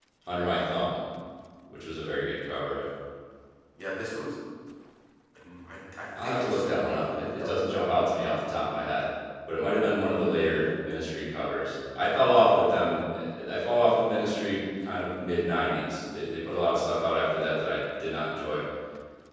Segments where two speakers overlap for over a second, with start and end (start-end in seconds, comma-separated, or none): 6.2-7.6